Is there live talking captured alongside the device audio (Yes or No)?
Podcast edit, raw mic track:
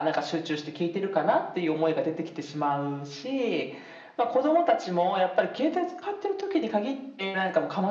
No